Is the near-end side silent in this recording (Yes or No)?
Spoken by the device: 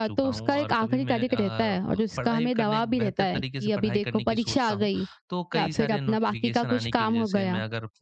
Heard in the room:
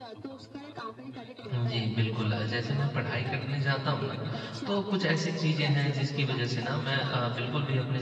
No